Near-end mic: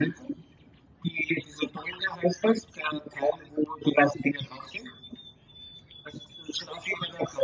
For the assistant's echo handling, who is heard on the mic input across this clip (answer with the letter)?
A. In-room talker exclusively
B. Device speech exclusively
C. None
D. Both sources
B